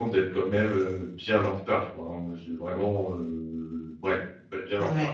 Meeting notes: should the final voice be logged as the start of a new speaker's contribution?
Yes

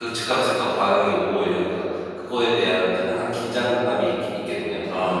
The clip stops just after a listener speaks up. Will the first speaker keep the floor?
No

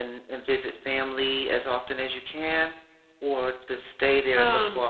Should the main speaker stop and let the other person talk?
No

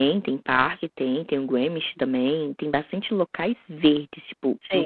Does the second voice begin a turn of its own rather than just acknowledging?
No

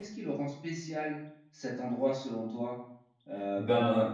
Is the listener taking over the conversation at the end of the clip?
No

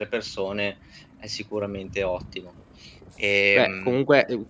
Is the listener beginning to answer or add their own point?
Yes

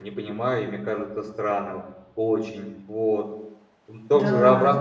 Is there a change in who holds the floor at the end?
No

